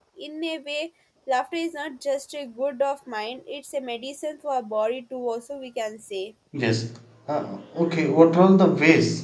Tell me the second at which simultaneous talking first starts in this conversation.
none

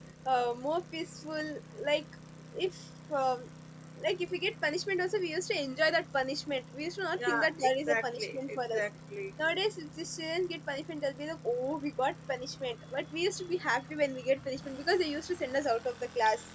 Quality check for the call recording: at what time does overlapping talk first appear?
7.2 s

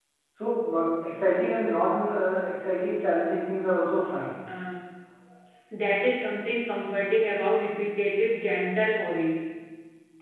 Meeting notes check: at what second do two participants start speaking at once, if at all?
none

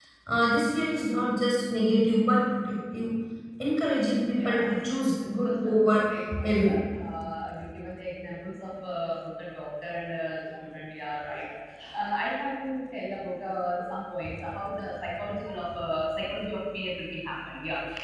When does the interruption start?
4.4 s

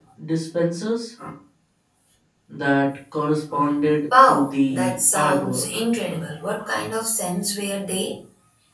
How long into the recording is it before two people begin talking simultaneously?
4.3 s

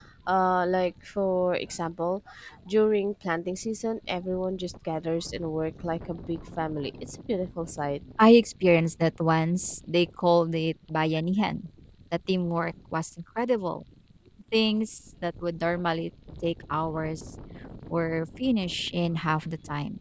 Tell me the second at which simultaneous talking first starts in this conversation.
none

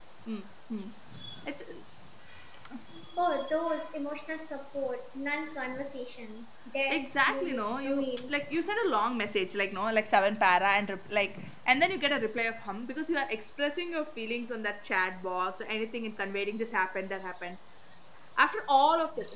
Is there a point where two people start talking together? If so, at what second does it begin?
6.9 s

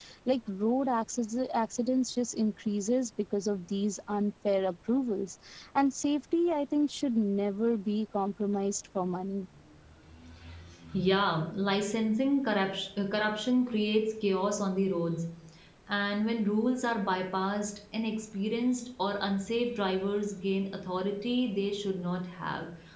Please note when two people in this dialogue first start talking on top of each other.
none

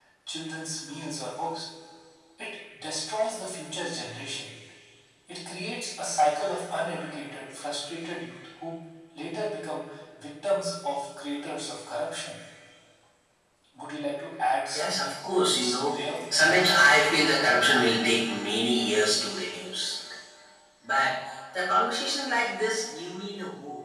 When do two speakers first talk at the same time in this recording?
14.7 s

